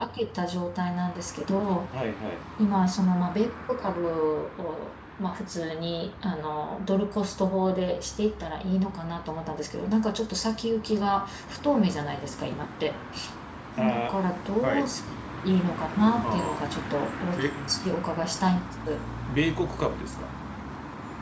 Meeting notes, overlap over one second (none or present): none